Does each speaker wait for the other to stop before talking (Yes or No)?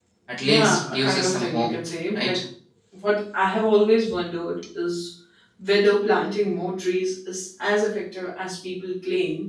No